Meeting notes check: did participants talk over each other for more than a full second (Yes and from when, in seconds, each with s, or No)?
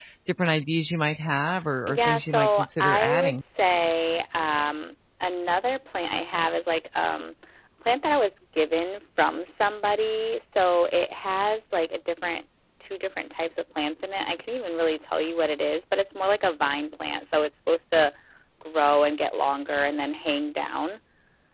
Yes, from 1.9 s